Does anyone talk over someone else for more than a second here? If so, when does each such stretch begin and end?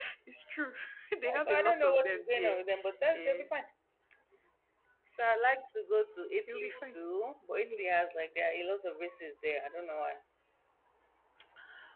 1.3-2.6

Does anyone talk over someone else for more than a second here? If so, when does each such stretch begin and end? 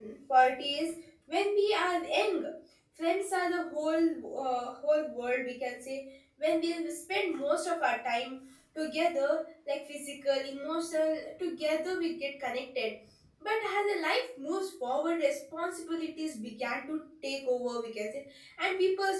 none

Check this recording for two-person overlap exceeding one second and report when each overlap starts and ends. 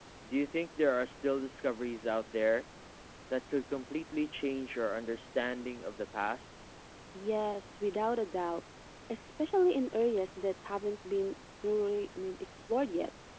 none

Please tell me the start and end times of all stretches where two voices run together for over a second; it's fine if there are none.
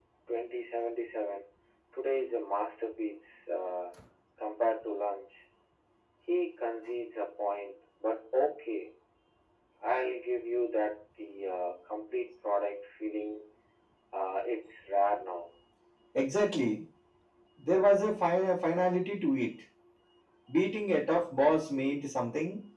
none

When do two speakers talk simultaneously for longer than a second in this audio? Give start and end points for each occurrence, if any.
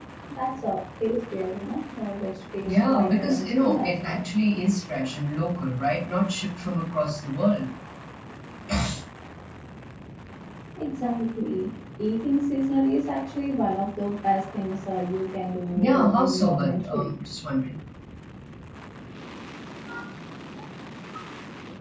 2.6-4.2, 15.7-17.2

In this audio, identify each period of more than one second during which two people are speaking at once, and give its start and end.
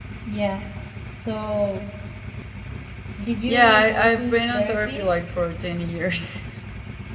3.5-5.1

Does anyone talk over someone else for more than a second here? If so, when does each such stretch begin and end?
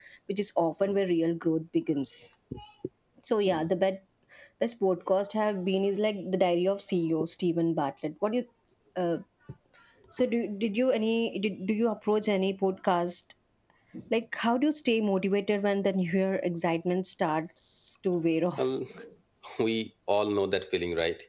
none

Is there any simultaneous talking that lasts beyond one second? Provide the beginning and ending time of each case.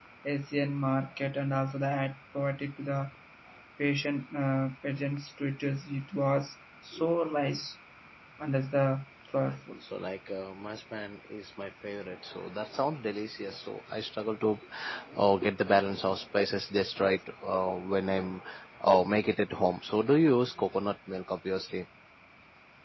none

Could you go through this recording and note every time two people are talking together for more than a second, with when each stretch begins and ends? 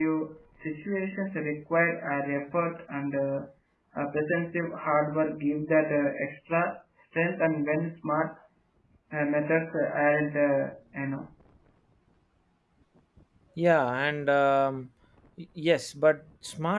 none

